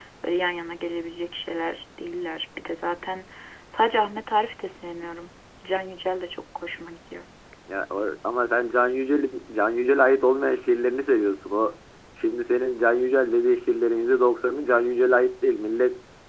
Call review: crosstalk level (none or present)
none